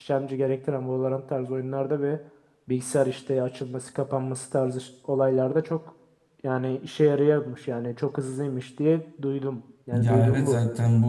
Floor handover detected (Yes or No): Yes